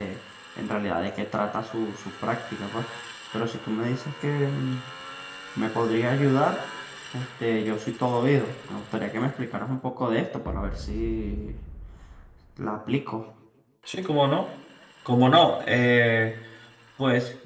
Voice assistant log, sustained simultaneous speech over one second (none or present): none